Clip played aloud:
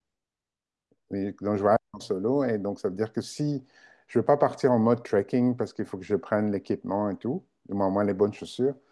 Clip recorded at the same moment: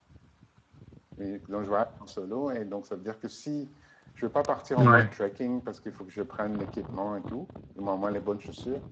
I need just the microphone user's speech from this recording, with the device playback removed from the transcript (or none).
ouais,